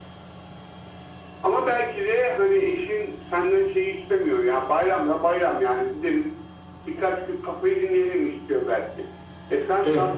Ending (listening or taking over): listening